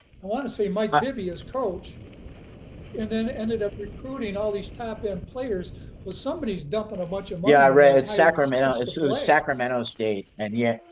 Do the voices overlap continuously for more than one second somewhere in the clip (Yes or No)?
Yes